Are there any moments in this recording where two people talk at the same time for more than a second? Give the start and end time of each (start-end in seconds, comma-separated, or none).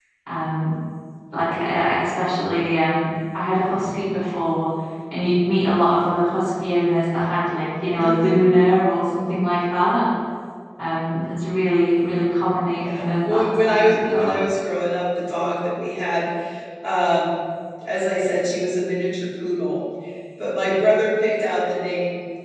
12.7-14.4